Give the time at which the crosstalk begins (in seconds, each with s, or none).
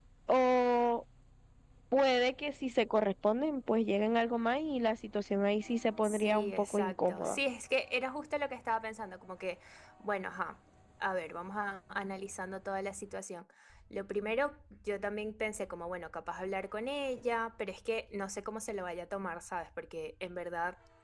6.0 s